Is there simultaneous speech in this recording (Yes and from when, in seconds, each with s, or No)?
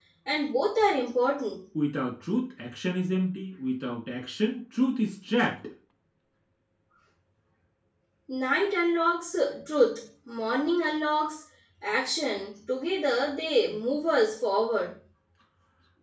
No